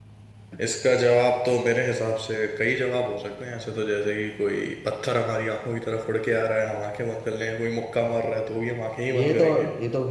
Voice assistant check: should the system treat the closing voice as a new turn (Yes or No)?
Yes